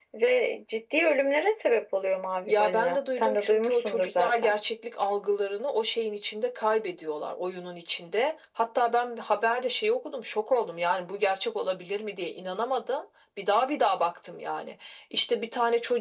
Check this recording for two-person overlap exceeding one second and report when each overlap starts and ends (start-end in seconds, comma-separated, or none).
2.5-4.6